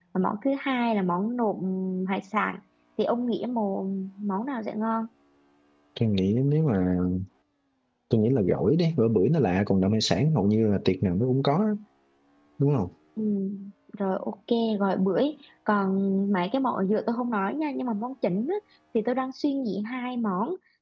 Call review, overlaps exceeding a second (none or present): none